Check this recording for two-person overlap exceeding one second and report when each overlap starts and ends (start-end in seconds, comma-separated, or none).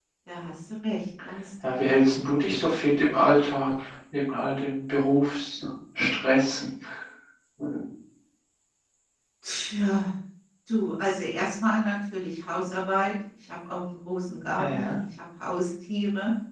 none